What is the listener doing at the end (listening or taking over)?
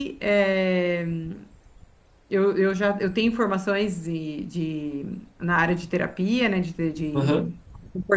listening